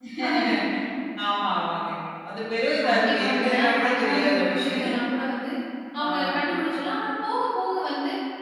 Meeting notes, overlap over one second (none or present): present